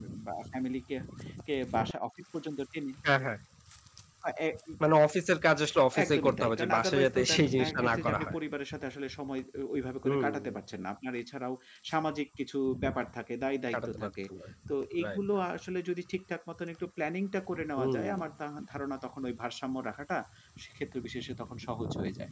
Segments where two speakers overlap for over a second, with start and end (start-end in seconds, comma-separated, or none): 6.0-8.4